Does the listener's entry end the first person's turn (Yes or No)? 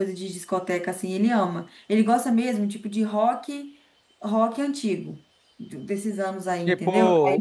Yes